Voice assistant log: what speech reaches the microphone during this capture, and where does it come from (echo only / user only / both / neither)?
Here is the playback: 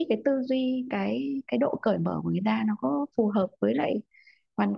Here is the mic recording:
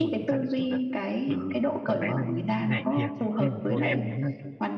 both